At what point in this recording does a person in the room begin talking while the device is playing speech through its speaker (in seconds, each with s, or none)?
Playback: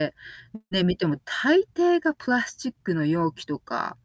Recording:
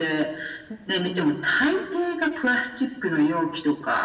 none